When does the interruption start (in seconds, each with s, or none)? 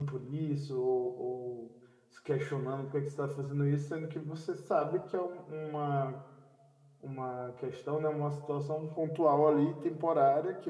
none